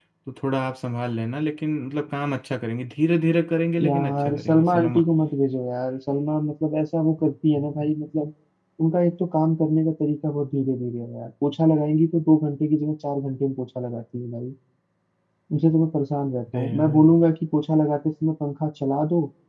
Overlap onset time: 3.8 s

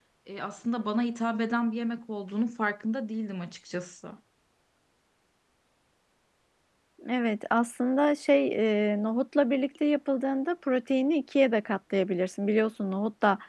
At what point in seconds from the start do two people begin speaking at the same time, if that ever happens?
none

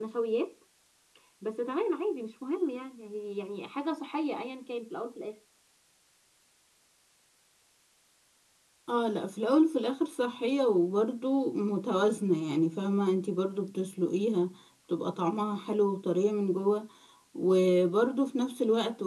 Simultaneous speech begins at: none

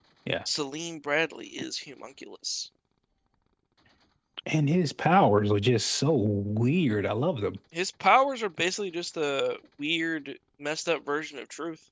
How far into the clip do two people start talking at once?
none

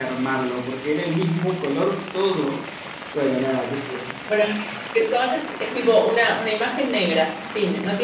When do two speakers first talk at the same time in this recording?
none

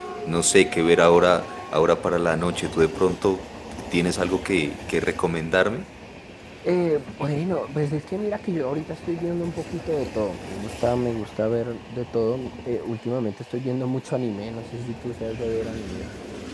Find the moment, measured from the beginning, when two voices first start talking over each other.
none

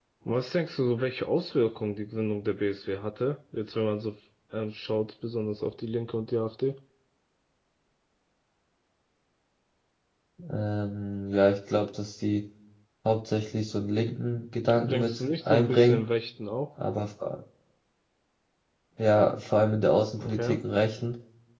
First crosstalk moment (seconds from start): 14.7 s

